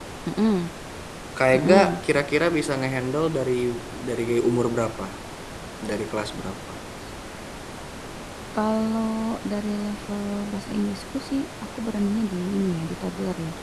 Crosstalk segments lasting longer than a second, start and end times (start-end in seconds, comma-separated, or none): none